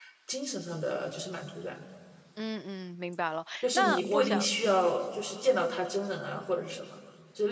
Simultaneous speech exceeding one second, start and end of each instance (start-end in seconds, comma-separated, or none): 3.6-4.9